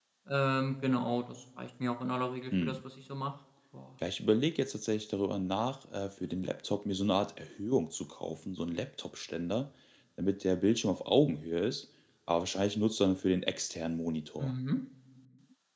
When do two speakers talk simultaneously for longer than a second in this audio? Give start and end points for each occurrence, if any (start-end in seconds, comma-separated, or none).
none